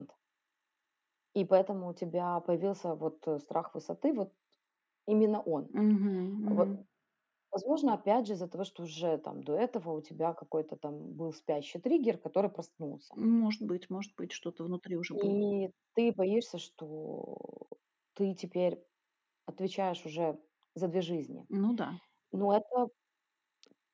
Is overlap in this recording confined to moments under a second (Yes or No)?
Yes